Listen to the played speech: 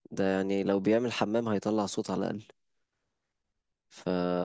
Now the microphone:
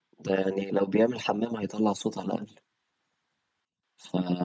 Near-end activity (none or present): none